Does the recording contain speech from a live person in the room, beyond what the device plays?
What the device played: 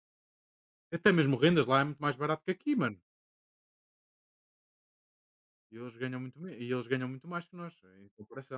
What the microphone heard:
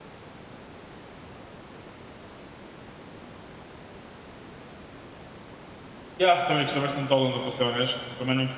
Yes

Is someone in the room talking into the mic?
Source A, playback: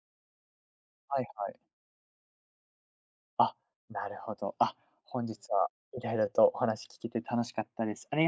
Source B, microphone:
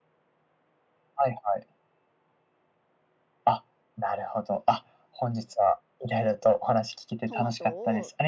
Yes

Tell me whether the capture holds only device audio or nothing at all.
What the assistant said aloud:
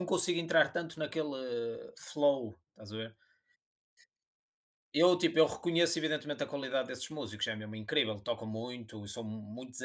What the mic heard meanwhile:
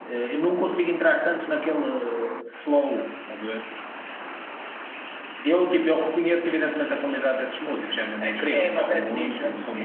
No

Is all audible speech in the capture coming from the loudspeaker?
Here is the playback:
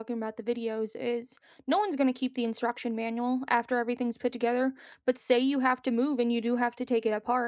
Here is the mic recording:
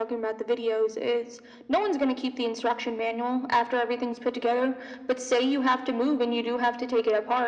Yes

